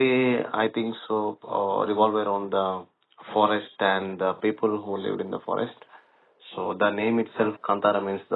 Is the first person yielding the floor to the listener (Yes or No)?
No